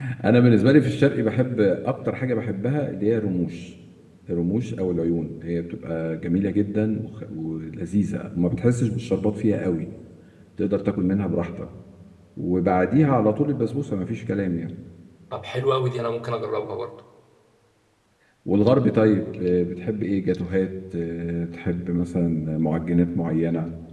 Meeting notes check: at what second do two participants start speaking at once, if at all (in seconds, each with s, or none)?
none